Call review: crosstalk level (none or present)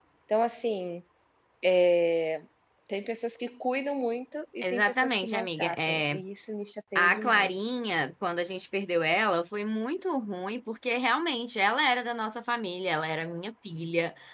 present